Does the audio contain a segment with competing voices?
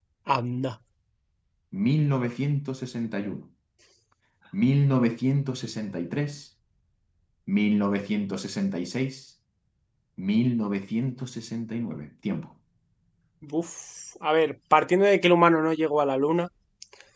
No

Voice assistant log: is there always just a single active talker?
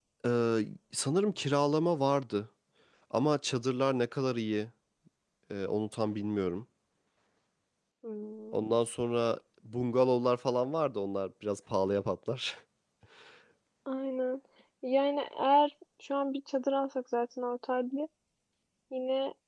Yes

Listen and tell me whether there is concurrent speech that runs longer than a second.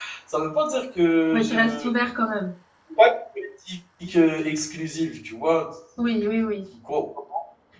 No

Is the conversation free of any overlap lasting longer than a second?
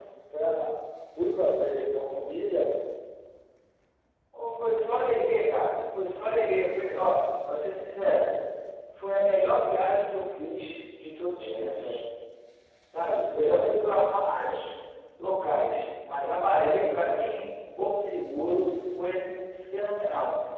Yes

